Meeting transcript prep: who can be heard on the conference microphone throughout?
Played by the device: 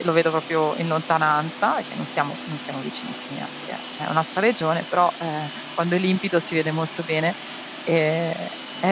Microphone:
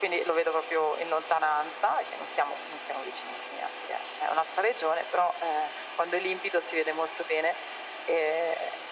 echo only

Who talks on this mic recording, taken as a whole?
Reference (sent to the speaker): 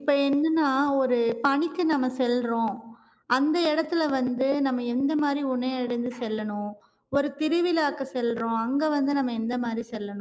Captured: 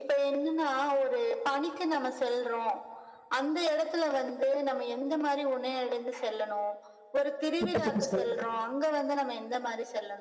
both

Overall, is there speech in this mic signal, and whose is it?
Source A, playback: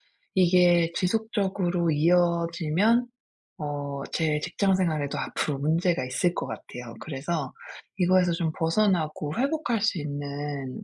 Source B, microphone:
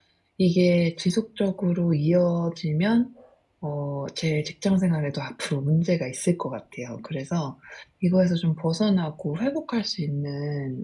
echo only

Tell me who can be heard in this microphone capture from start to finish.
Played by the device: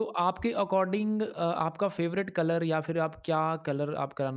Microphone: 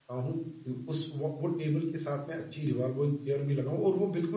user only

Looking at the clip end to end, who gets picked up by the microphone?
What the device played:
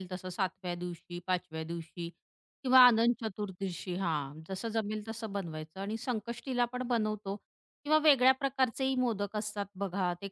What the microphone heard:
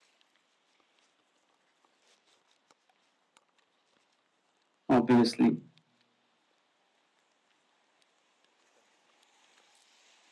user only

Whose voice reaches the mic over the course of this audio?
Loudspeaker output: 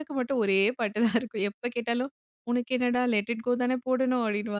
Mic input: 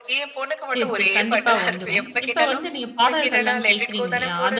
both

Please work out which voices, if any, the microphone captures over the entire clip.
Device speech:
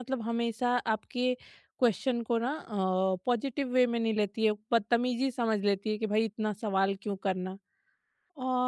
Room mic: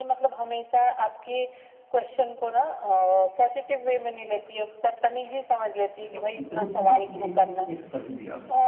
both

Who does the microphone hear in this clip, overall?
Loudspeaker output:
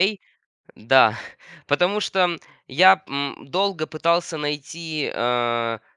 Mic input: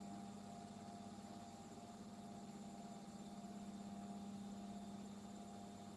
neither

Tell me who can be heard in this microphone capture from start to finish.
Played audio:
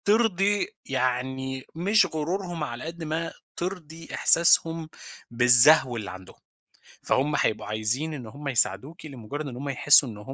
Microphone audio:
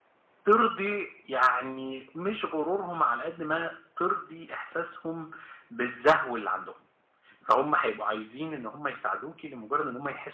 echo only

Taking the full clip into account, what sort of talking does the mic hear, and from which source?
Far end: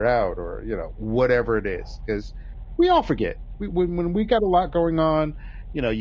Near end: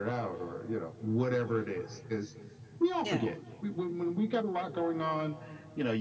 both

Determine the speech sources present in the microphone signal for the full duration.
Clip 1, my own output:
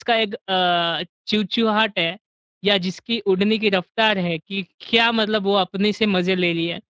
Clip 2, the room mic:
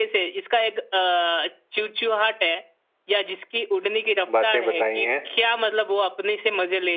both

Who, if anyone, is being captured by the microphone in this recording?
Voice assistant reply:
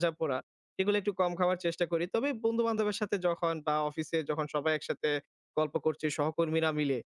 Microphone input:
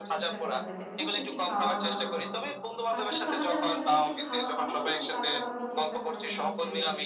both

